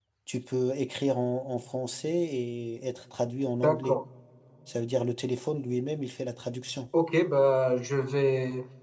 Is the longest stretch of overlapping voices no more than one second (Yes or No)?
Yes